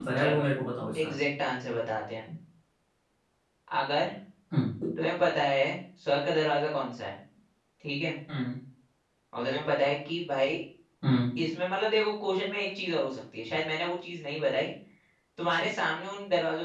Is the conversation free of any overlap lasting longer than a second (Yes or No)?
Yes